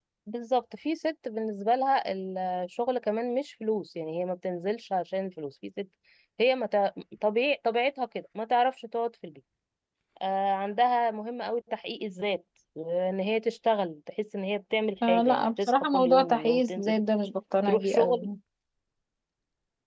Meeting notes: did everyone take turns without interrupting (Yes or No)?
No